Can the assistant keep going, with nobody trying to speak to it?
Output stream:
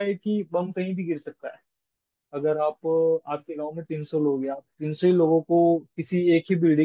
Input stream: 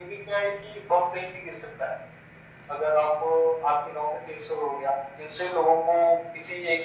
Yes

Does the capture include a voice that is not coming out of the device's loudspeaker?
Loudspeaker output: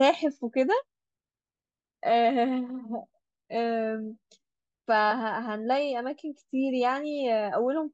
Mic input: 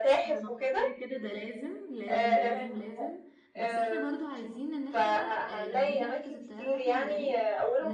Yes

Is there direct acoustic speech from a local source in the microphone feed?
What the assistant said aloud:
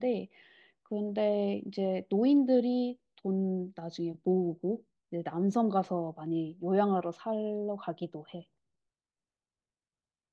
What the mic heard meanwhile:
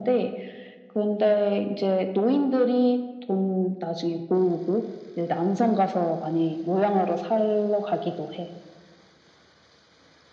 No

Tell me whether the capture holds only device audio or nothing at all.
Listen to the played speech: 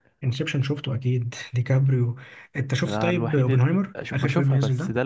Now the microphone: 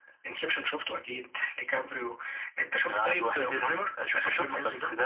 Yes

